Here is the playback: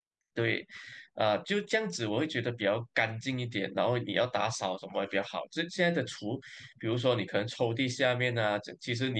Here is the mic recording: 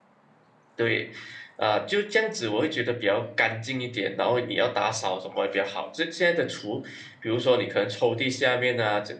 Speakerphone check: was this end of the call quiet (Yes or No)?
Yes